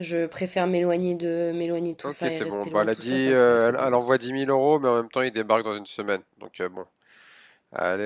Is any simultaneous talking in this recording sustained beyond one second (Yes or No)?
Yes